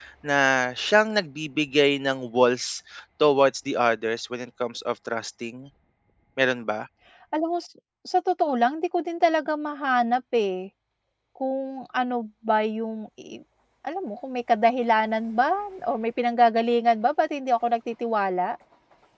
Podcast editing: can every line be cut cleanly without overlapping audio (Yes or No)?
Yes